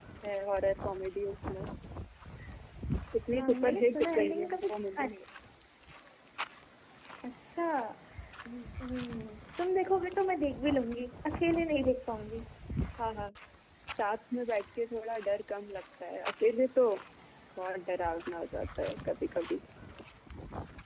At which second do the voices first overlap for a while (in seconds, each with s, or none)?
3.3 s